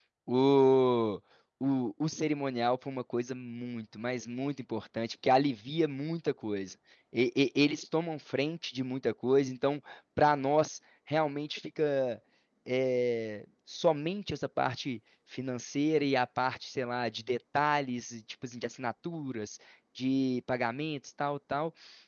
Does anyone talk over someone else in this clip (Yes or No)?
No